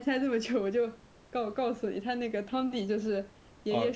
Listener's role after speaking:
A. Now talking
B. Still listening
B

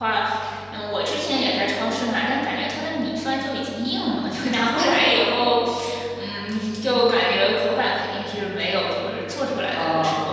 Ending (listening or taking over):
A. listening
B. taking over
A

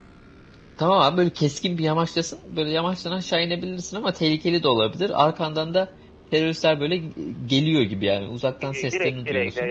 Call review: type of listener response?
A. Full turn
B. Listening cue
A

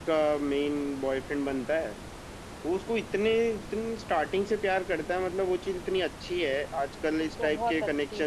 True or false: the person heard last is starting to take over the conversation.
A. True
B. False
B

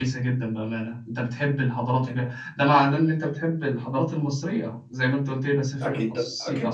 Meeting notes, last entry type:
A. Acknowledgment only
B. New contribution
B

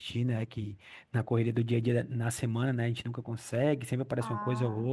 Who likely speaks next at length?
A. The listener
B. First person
B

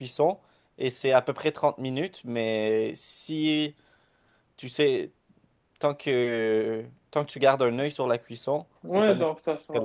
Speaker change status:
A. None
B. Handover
B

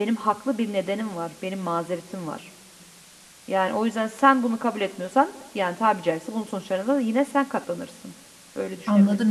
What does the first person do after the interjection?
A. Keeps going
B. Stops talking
B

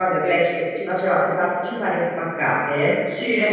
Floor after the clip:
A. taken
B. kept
B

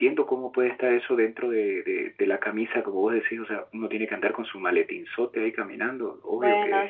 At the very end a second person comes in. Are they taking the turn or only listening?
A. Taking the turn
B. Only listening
A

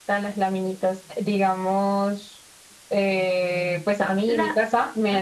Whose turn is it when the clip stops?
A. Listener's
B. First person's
B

